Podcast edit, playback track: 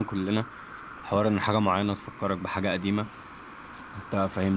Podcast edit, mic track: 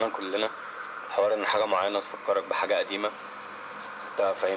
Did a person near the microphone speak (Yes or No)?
No